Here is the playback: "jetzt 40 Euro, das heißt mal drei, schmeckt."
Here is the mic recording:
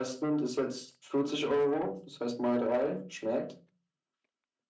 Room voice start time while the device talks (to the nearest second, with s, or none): none